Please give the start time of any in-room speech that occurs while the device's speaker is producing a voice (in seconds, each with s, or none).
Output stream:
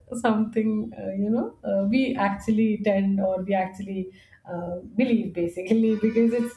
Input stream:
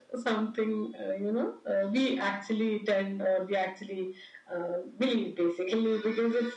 none